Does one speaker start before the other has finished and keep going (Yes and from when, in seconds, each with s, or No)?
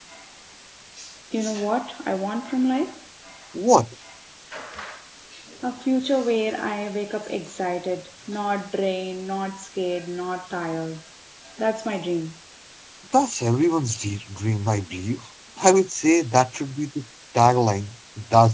No